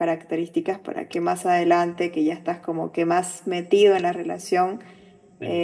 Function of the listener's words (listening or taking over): listening